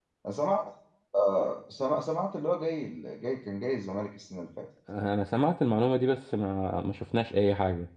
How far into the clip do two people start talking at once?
none

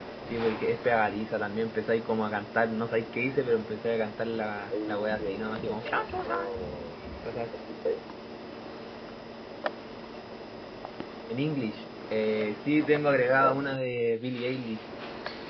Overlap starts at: 5 s

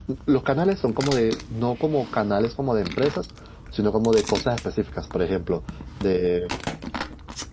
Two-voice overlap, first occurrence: none

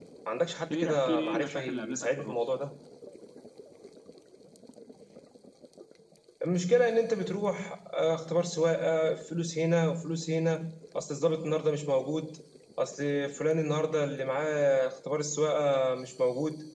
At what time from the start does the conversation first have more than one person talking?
1 s

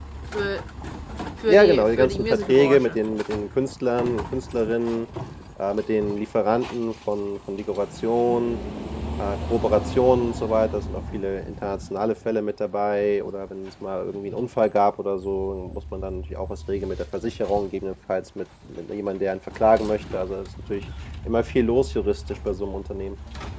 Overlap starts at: 1 s

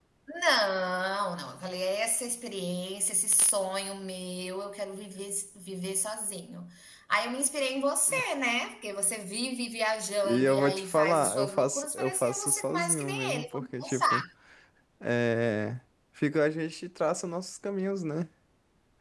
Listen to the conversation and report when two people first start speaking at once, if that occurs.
10 s

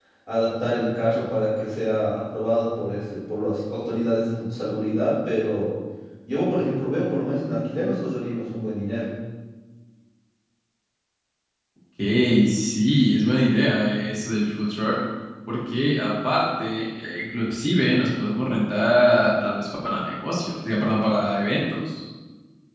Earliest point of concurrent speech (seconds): none

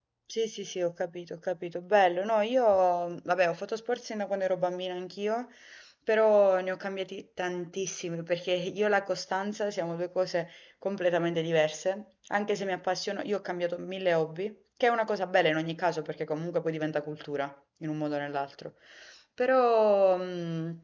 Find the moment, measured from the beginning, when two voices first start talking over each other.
none

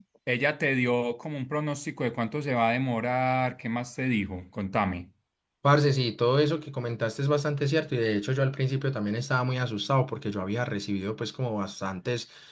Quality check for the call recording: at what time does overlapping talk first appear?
none

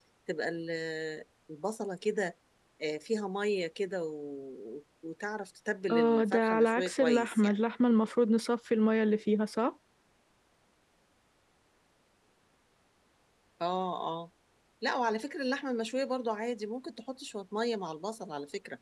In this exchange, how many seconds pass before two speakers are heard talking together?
6 s

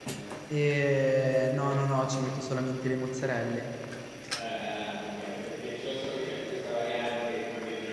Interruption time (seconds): none

